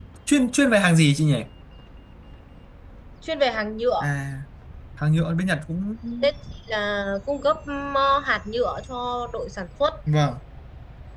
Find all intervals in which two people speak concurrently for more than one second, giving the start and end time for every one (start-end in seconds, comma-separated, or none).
none